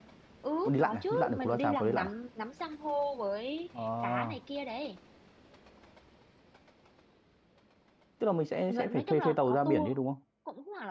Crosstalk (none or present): present